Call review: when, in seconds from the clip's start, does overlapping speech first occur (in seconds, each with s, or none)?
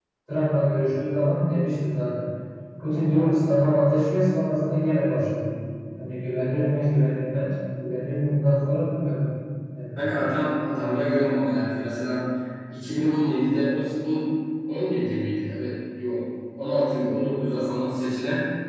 none